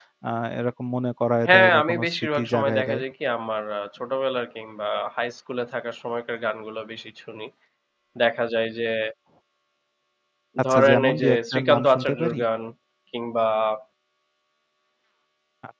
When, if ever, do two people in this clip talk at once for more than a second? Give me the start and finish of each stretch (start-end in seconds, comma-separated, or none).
1.5-3.0, 10.7-12.4